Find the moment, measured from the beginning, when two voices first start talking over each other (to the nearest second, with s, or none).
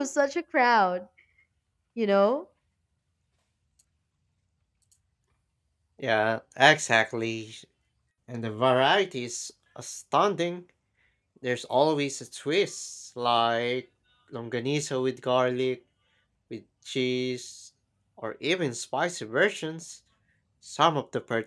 none